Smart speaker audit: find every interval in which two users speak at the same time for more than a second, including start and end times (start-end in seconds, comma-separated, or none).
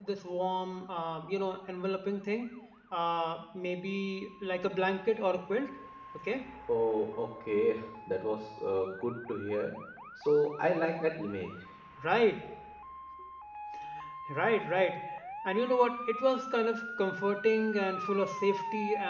none